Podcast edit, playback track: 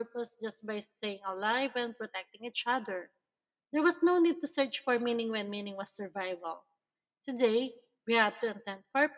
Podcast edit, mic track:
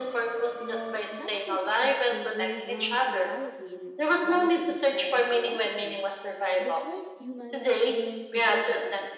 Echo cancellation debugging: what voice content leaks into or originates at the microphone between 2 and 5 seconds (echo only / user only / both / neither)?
both